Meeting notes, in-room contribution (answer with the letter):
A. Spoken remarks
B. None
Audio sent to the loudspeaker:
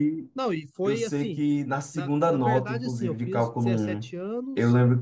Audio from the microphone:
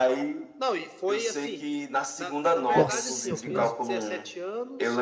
A